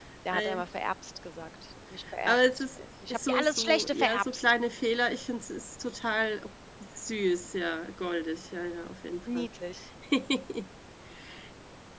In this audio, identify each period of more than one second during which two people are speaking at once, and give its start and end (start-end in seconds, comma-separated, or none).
3.3-4.5